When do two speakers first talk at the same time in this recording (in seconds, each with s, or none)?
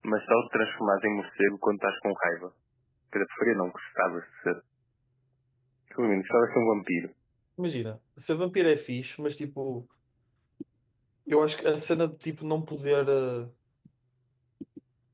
none